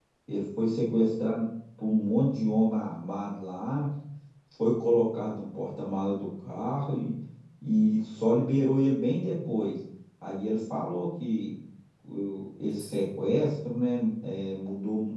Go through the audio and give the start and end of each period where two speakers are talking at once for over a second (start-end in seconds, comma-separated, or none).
none